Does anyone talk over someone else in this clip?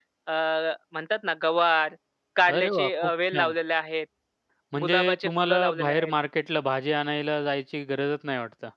Yes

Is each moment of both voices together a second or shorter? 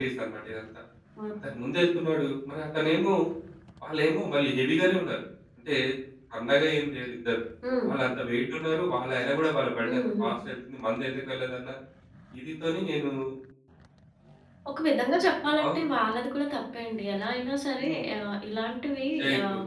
Yes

